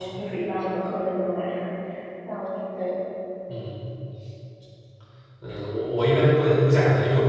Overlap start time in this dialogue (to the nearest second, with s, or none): none